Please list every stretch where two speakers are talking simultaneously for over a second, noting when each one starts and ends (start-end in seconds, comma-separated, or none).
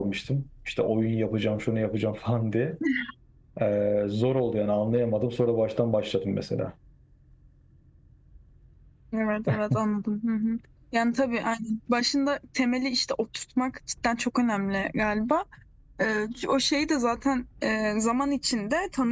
none